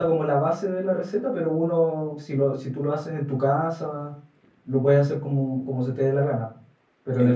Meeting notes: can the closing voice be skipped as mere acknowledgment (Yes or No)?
No